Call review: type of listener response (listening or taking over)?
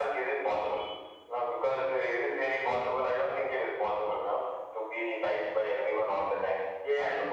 listening